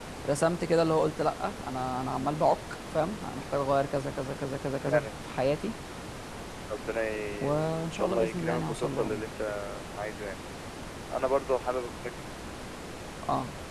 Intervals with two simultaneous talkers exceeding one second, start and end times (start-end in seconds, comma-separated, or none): 7.4-9.3